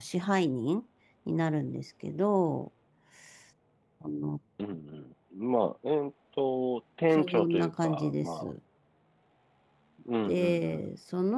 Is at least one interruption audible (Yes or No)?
Yes